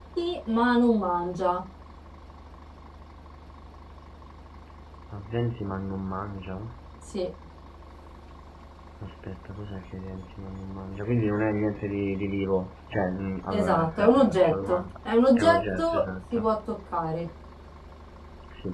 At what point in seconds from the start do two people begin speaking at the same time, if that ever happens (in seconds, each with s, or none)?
13.5 s